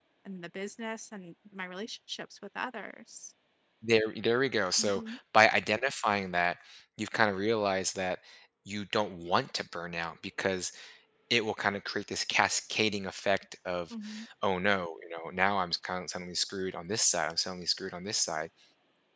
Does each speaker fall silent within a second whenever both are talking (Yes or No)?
Yes